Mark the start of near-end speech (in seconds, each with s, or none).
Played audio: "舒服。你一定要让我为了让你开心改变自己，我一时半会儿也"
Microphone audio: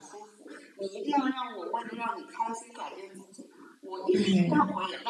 4.1 s